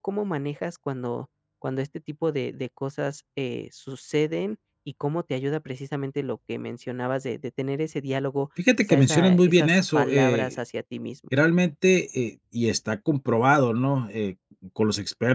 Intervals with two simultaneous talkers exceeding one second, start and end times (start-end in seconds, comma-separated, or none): 8.8-10.6